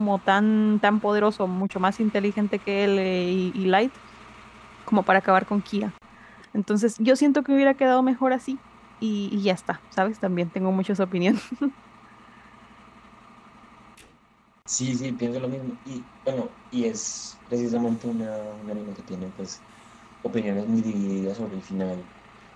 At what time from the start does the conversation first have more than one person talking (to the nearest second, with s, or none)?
none